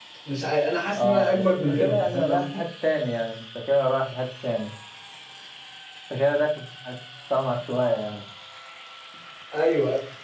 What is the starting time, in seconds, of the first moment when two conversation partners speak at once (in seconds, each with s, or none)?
0.9 s